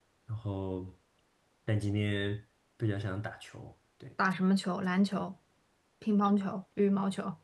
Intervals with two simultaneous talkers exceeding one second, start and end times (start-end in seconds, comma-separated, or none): none